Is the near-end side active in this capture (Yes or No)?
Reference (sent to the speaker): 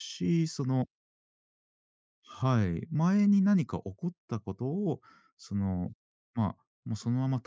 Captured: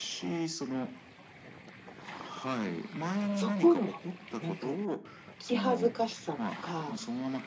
Yes